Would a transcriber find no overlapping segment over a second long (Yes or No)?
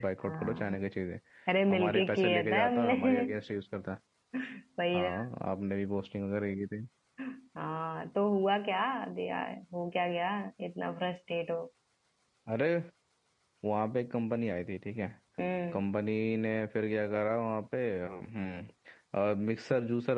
No